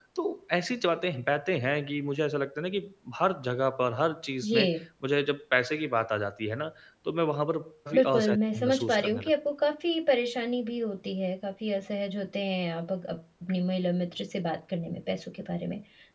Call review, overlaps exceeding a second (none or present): present